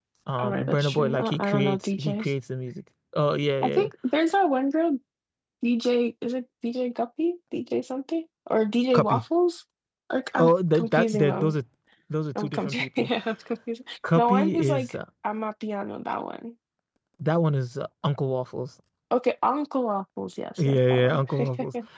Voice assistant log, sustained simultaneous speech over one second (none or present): present